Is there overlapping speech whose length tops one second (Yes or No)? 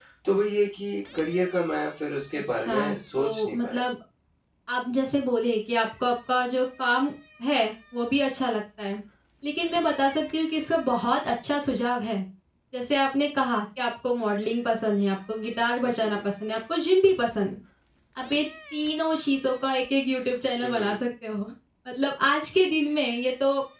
Yes